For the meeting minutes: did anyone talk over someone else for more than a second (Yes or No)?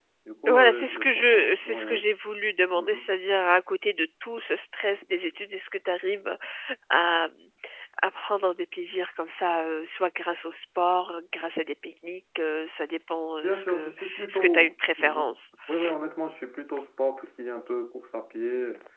Yes